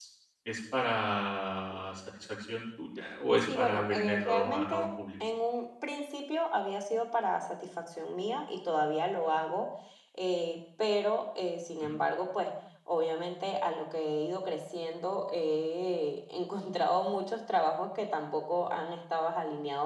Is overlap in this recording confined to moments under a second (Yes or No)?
No